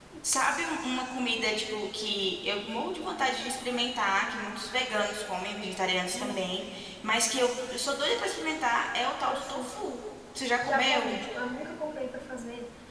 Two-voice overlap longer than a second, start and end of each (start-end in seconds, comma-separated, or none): none